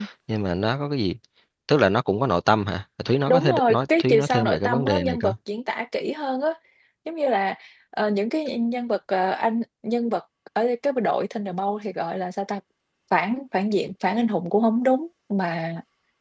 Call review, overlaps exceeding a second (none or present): present